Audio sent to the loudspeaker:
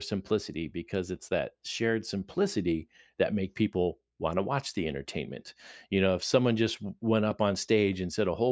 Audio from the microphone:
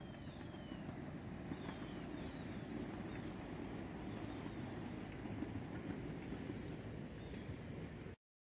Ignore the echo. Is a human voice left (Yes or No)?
No